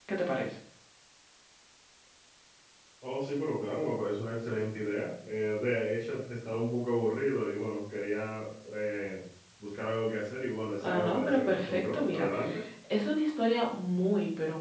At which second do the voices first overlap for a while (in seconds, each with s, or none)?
10.8 s